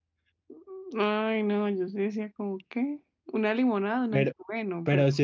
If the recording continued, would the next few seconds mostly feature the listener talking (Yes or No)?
Yes